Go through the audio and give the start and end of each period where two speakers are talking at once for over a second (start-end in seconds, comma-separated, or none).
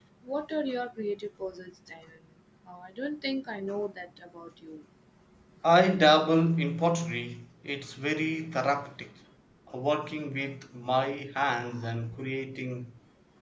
none